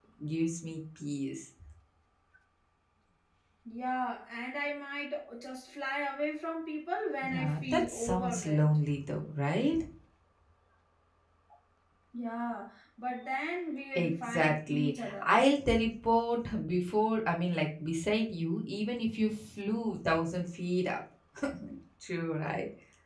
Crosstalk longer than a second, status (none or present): present